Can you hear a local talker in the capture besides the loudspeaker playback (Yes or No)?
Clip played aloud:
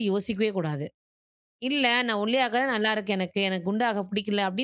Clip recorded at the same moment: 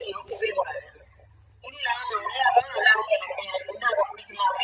No